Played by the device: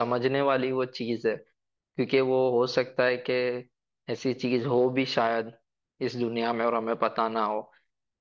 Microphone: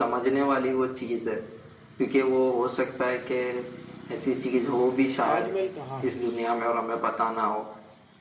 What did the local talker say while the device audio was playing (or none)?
ताजमहल कहाँ है